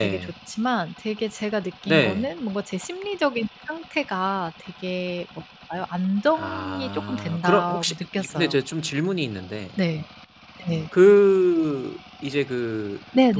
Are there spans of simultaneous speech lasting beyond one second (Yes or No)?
Yes